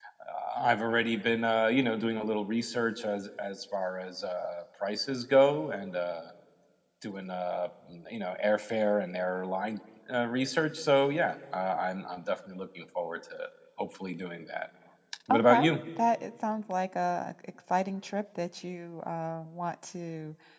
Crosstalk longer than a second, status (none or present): none